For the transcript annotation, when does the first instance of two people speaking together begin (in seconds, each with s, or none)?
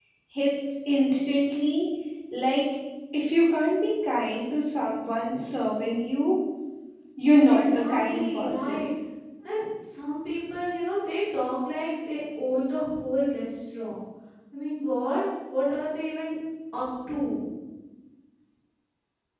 7.5 s